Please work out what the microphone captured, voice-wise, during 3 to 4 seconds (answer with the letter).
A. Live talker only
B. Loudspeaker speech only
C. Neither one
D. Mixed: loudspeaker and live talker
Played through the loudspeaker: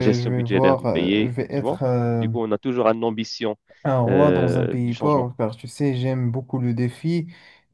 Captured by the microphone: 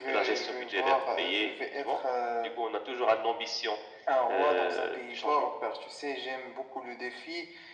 B